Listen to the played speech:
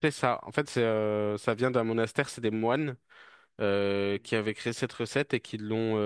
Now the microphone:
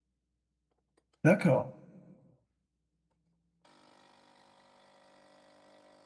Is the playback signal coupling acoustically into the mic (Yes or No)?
No